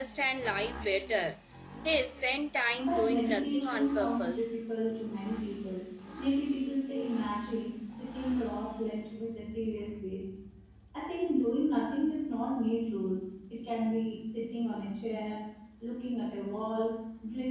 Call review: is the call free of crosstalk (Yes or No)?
No